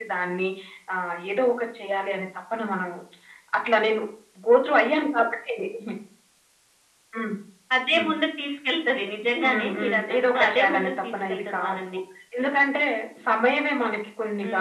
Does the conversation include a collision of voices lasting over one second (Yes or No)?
Yes